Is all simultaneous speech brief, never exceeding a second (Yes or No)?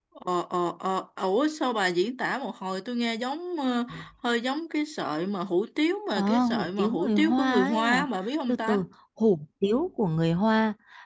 No